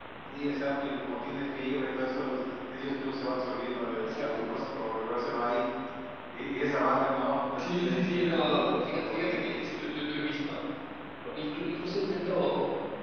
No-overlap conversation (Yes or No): No